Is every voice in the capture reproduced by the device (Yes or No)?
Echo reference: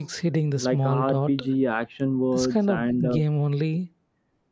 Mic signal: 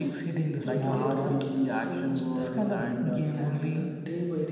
No